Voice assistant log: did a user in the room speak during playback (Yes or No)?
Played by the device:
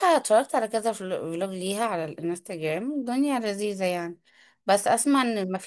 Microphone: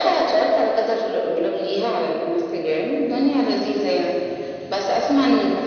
No